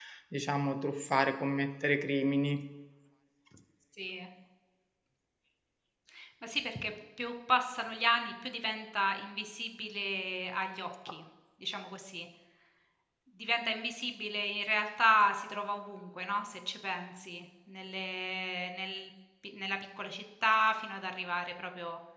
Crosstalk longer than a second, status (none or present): none